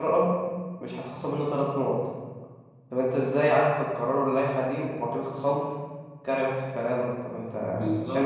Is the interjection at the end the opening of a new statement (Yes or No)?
Yes